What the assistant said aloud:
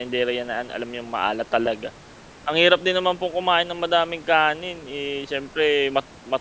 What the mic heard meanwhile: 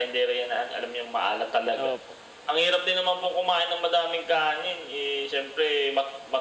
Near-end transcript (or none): Opo.